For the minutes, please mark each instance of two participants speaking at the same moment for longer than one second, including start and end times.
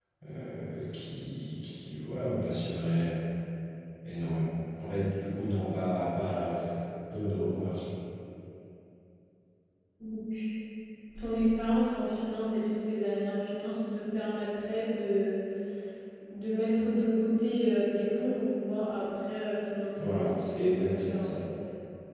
20.0-21.4

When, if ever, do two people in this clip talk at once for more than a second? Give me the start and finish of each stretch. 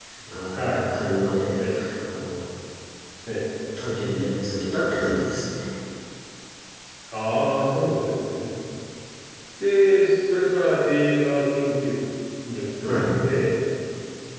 none

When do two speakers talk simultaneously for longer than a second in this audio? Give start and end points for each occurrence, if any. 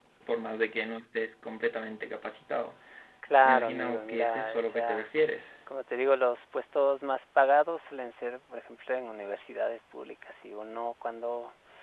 3.4-5.1

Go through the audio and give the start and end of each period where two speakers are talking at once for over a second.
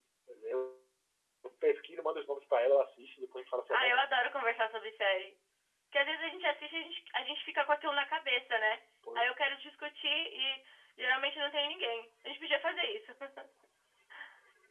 none

